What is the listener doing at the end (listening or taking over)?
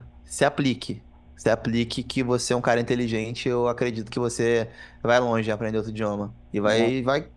listening